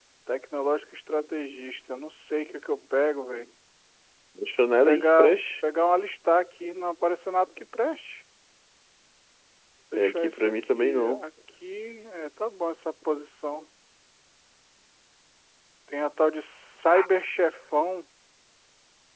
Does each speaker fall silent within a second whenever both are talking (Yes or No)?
No